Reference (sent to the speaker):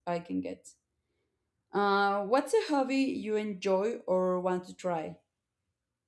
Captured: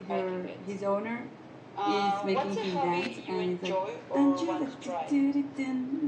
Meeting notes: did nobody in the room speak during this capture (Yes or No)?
No